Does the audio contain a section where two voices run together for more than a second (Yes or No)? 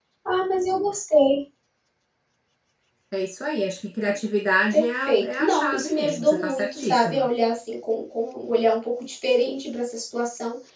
Yes